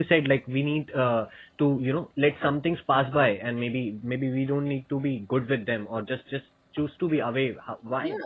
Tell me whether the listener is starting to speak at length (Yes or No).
Yes